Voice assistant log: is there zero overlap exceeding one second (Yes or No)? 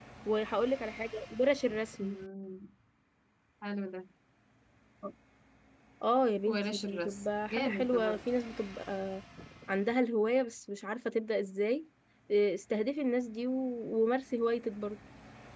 No